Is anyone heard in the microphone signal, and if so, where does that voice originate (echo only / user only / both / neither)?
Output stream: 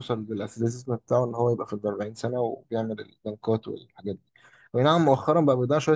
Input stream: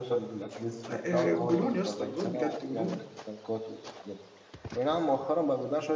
both